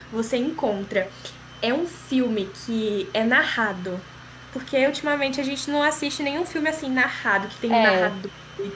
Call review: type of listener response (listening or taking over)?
listening